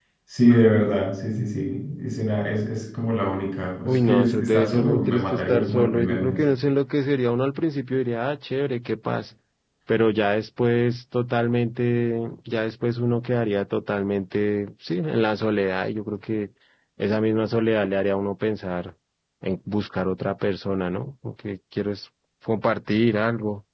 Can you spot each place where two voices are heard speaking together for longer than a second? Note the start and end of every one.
3.9-6.4

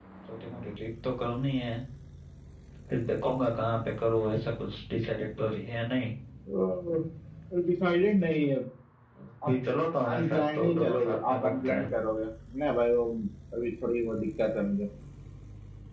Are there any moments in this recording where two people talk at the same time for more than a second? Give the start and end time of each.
10.1-11.9

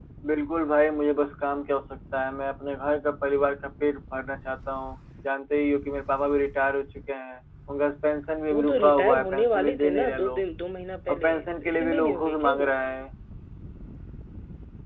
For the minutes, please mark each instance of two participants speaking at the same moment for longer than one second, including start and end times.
8.5-10.4, 11.1-12.7

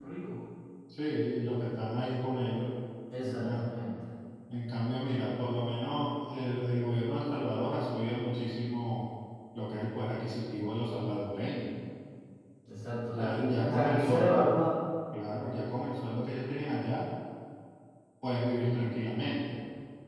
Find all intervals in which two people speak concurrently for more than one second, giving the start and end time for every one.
13.1-14.5

